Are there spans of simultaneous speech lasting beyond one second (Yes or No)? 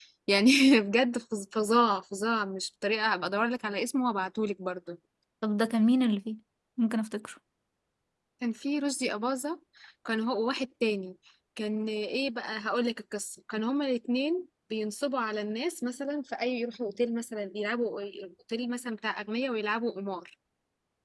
No